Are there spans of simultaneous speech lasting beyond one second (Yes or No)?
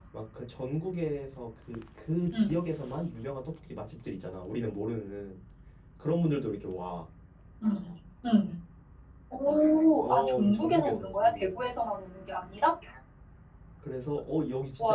Yes